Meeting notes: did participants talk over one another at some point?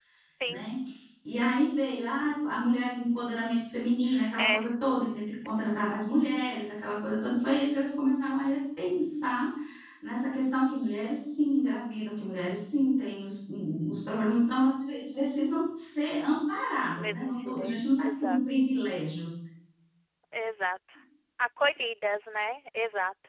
Yes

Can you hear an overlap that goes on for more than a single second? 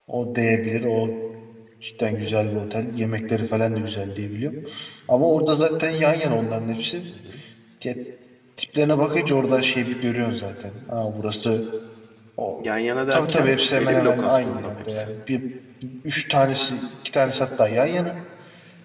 Yes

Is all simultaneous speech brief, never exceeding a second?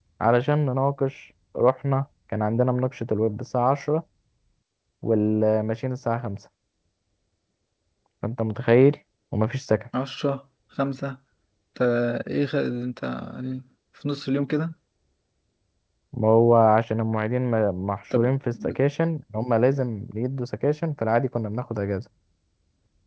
Yes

